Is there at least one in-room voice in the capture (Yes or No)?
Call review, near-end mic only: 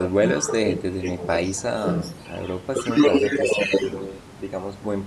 Yes